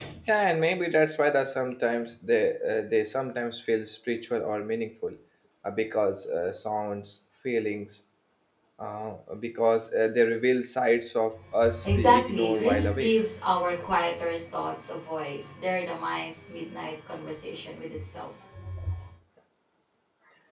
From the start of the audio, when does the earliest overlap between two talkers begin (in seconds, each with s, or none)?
11.6 s